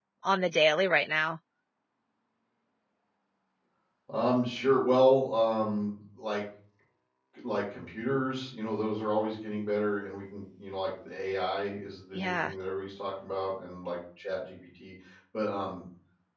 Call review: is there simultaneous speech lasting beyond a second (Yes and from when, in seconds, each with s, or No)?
No